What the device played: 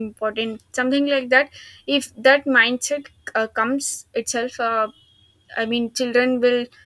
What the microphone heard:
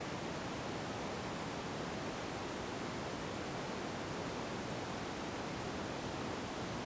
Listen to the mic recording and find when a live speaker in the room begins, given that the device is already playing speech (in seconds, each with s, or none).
none